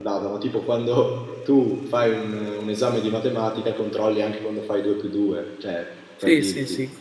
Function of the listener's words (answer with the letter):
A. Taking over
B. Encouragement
A